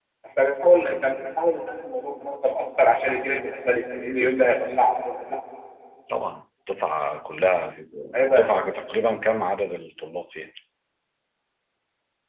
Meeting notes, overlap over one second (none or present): none